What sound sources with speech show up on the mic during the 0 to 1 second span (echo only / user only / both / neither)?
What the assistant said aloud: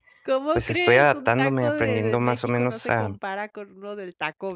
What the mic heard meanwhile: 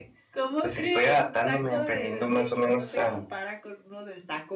echo only